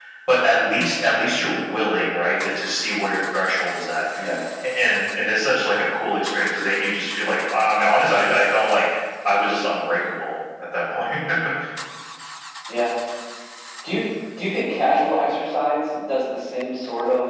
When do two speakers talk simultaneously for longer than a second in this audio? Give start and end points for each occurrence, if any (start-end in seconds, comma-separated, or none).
none